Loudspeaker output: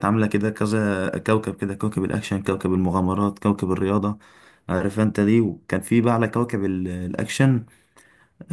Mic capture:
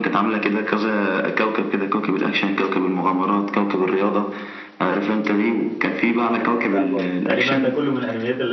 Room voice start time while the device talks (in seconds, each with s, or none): 6.4 s